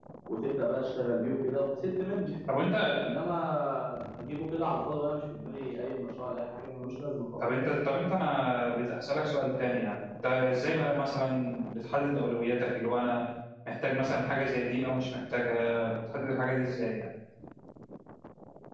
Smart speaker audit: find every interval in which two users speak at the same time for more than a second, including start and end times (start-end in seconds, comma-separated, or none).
none